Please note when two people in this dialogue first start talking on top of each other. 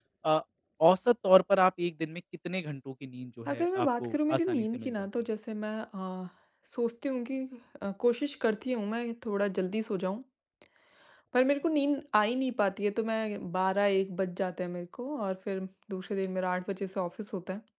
3 s

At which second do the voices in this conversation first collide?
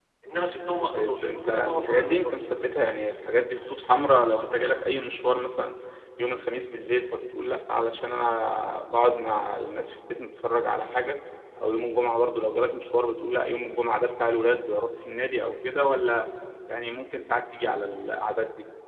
1 s

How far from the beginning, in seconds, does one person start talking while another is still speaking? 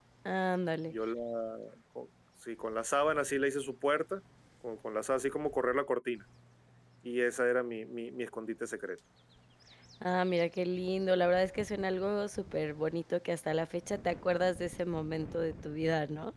none

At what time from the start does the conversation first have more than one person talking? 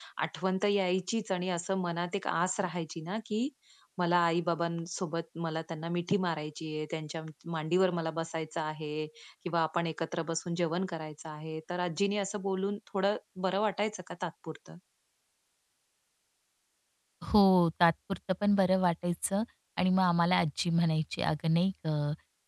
none

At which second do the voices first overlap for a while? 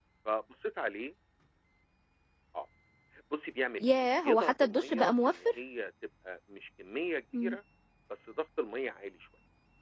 4 s

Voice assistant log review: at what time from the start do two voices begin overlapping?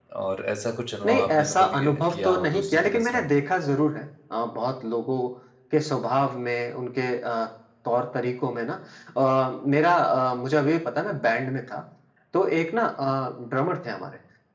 1 s

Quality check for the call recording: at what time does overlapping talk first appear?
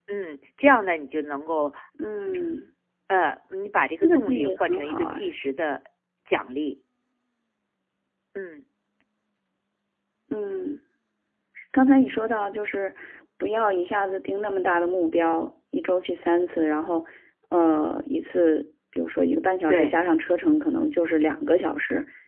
4 s

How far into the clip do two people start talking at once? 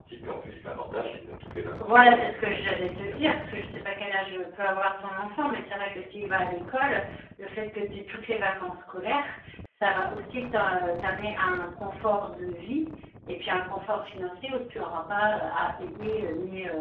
2 s

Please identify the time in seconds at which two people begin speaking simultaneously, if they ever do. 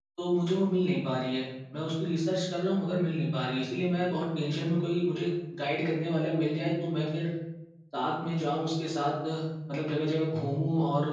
none

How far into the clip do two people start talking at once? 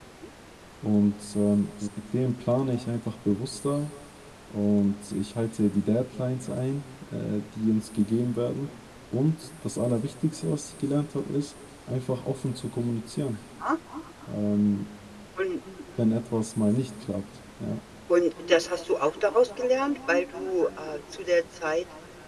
none

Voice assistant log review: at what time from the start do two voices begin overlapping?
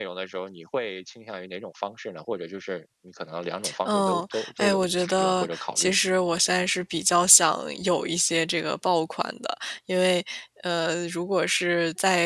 4 s

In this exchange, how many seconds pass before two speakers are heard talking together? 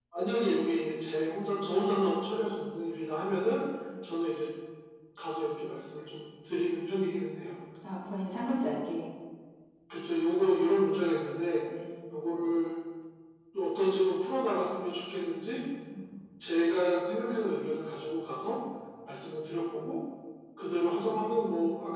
none

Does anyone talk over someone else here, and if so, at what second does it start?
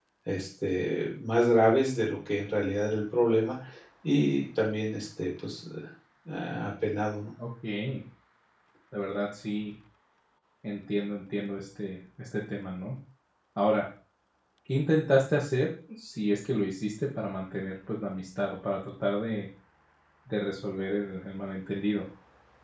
none

